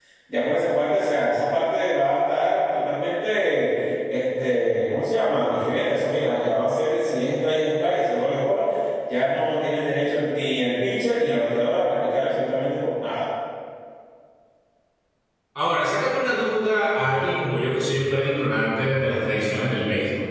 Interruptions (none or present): none